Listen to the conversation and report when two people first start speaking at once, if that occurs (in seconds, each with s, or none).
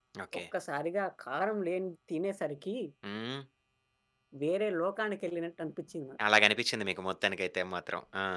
none